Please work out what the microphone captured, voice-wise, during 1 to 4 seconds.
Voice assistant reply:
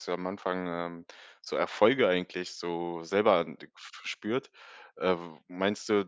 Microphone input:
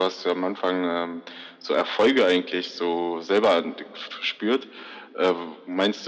echo only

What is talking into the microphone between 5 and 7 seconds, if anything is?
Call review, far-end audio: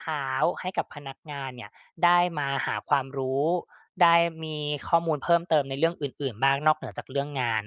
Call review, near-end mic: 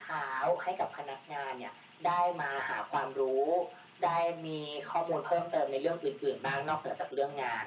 echo only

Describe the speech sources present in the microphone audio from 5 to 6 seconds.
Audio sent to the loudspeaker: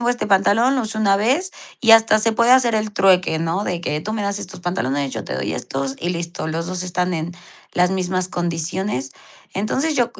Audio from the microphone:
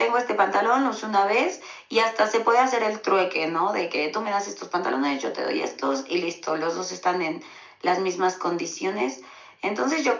echo only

